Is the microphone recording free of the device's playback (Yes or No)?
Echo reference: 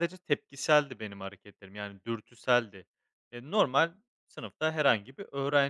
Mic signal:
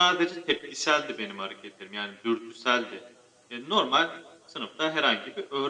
No